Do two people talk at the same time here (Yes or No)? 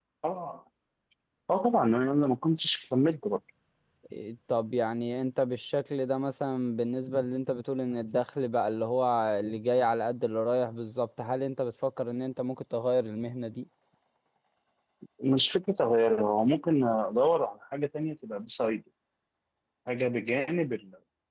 No